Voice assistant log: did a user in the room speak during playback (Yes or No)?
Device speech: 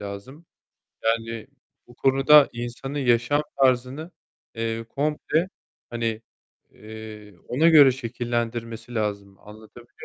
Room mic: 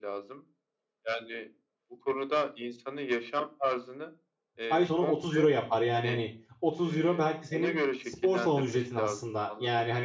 Yes